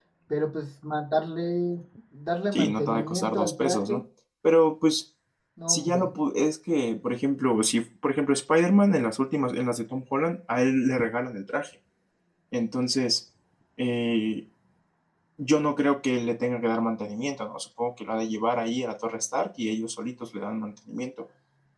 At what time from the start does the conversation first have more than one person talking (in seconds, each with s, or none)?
2.5 s